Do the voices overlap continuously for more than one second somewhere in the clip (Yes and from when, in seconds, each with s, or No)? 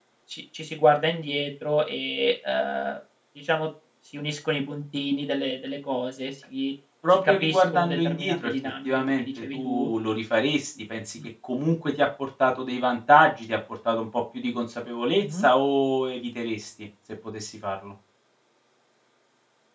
Yes, from 7.0 s